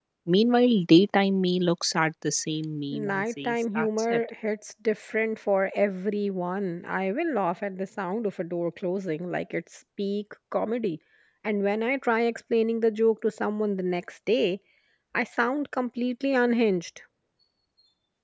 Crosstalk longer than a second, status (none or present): present